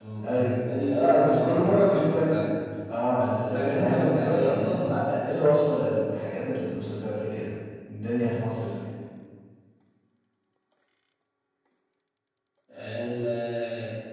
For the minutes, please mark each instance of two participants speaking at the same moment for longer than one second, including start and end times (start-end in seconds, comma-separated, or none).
1.0-2.3, 3.2-4.9